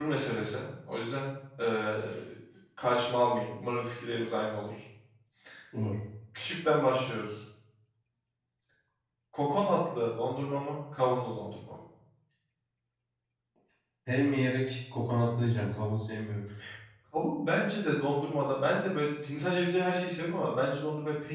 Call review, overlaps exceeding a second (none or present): none